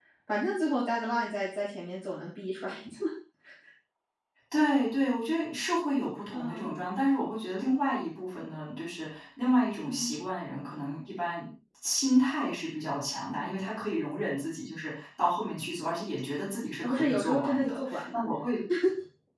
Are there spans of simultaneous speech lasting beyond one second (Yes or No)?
Yes